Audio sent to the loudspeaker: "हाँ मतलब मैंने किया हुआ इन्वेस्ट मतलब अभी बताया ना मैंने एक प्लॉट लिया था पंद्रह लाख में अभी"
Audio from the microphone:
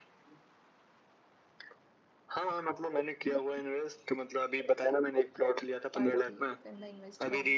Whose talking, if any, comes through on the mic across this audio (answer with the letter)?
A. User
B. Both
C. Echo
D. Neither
B